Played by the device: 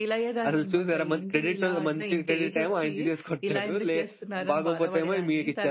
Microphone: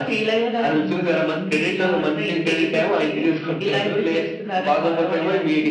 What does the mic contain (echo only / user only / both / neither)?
echo only